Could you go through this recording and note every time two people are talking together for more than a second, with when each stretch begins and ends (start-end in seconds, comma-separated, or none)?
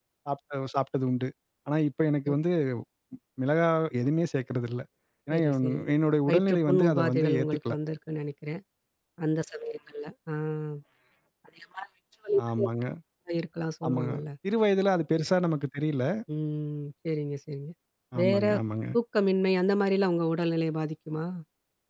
6.3-7.7